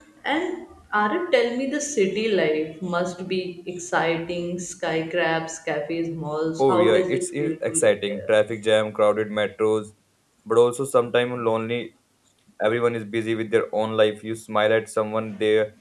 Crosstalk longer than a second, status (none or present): present